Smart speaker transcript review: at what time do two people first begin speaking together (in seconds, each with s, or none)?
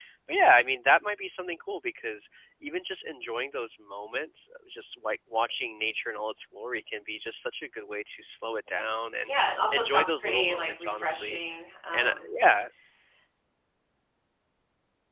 9.7 s